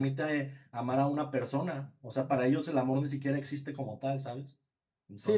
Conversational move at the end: taking over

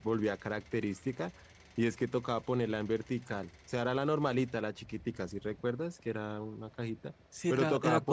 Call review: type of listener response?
taking over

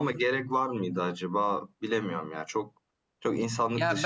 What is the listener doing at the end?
taking over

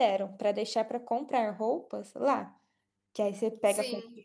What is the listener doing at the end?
listening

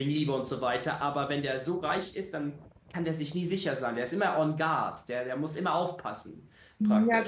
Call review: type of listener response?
taking over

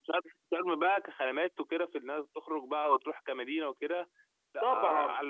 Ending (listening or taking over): taking over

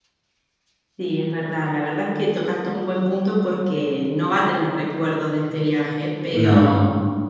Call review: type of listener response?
listening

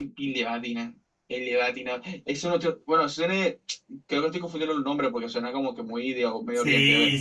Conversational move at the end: taking over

